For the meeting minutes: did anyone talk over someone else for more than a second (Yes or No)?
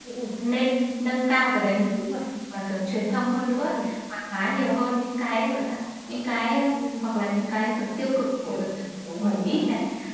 No